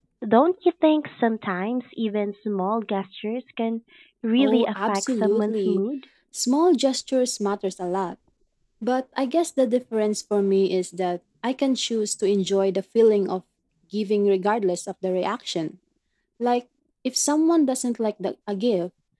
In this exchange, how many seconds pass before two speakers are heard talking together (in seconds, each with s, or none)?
4.4 s